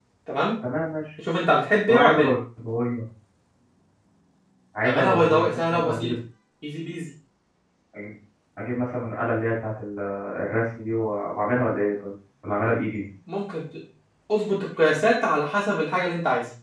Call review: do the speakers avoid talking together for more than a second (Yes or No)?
No